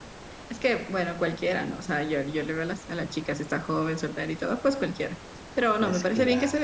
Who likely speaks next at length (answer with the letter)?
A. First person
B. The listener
A